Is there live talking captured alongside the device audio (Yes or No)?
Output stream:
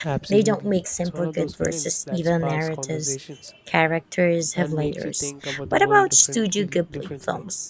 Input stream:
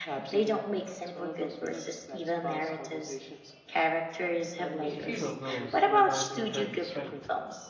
Yes